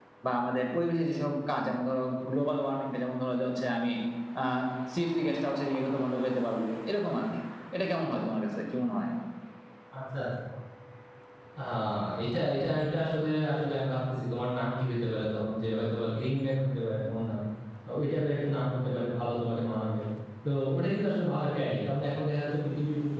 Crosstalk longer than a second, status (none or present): none